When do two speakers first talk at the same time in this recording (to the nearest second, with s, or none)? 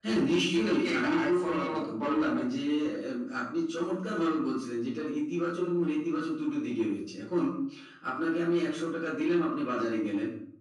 1 s